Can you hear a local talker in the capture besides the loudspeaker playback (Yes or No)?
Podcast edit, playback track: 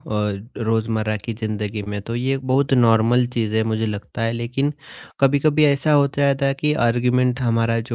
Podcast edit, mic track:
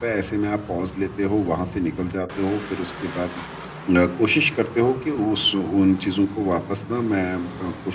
Yes